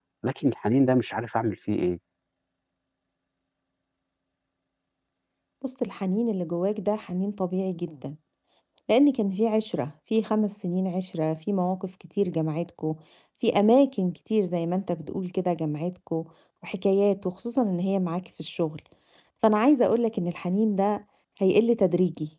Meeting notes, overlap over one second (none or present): none